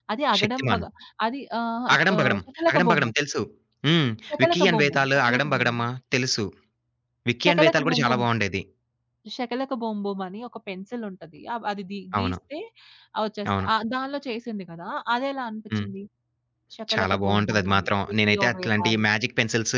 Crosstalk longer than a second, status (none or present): present